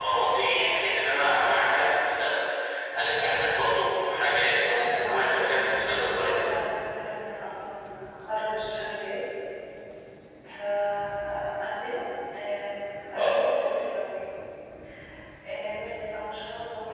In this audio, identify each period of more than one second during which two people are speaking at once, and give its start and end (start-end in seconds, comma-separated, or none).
4.8-6.3